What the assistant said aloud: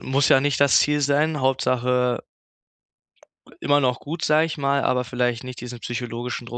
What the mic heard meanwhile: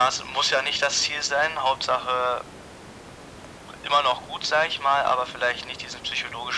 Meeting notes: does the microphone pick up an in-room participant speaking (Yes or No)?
No